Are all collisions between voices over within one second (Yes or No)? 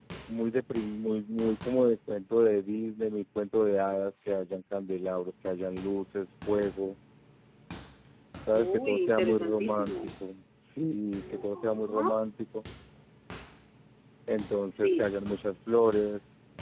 No